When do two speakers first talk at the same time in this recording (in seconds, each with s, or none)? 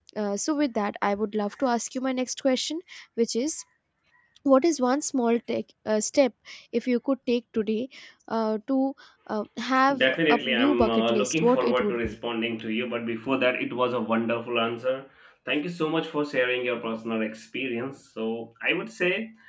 9.9 s